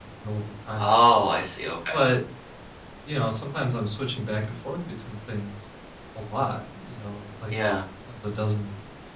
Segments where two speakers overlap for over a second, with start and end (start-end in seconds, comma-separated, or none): none